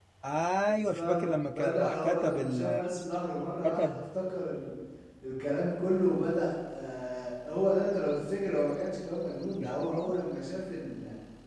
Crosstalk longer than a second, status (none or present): present